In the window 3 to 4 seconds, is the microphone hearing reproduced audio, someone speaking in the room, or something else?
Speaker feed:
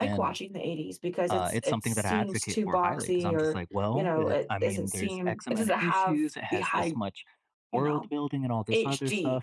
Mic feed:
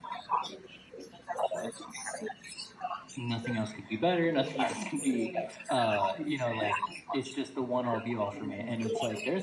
both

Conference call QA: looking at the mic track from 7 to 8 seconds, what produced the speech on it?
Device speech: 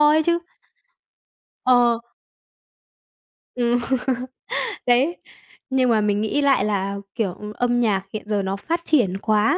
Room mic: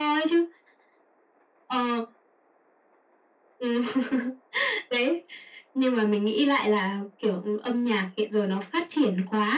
echo only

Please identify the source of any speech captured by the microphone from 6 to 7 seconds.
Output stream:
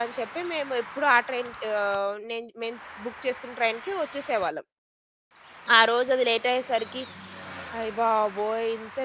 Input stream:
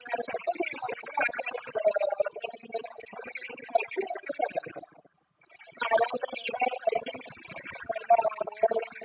echo only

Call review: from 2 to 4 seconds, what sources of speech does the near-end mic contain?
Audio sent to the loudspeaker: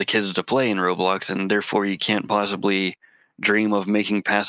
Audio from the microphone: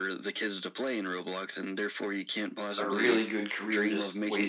both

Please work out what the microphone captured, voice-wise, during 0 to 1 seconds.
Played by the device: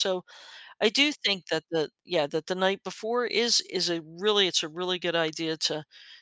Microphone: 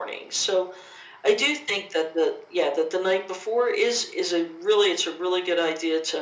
echo only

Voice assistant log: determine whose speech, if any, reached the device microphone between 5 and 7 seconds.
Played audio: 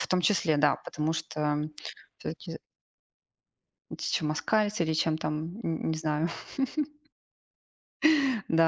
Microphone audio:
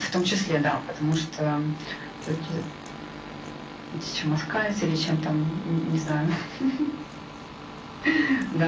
echo only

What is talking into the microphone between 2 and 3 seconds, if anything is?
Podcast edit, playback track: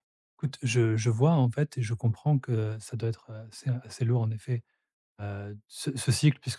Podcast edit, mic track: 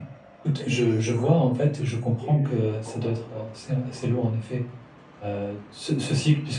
both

